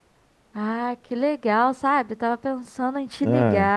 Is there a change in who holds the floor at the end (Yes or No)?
No